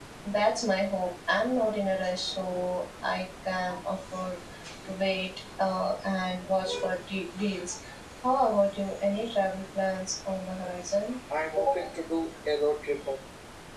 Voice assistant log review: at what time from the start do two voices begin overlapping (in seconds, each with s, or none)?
none